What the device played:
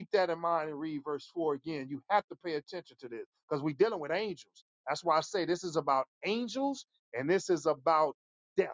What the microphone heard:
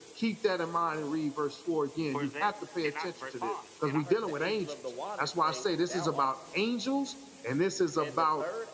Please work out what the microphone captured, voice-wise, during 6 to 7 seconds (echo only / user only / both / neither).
both